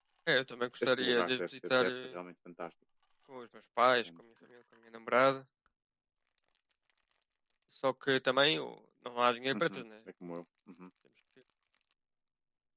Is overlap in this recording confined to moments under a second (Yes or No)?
No